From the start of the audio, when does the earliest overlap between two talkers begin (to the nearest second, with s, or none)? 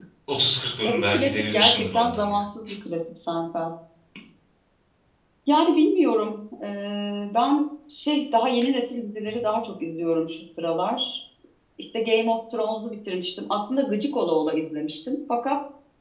1 s